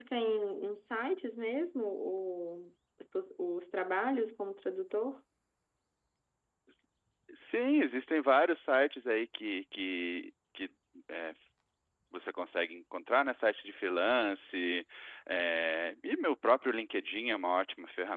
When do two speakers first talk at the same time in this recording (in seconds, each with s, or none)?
none